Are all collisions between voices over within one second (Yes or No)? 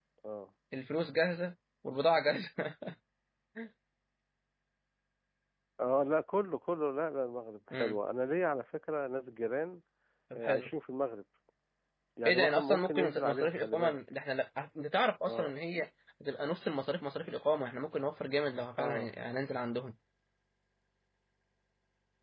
No